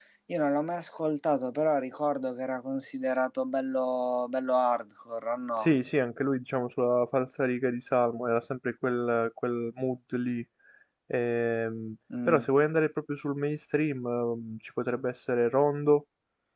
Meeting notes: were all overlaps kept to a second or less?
Yes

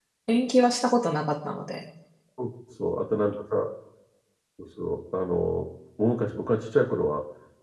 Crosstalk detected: No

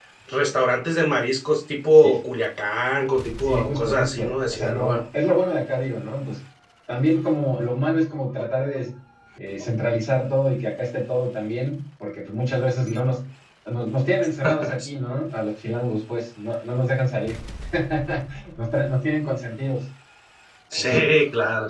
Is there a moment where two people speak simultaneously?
Yes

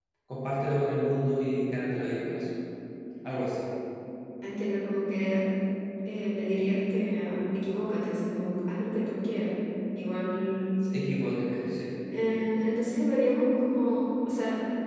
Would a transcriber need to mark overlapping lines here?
No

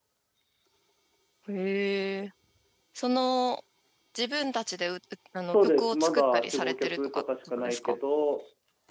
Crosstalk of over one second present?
Yes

